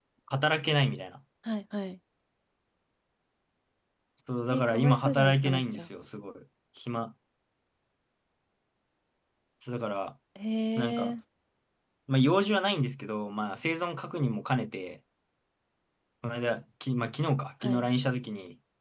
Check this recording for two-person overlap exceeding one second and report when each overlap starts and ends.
4.5-5.9

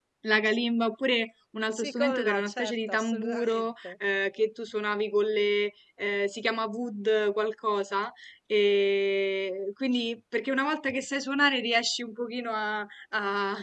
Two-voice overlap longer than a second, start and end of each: 1.7-3.9

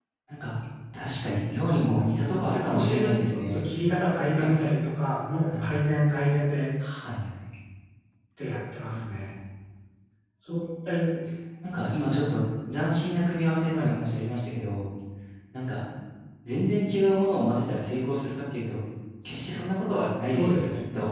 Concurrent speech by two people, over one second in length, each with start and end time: 2.3-3.6

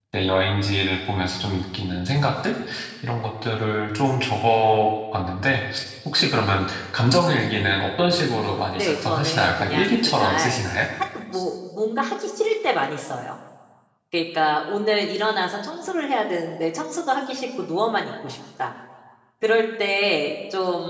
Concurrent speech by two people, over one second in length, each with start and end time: 8.8-10.6

